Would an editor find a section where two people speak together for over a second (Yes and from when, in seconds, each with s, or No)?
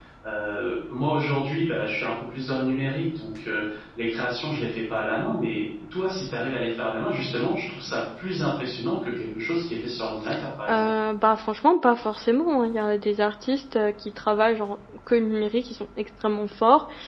No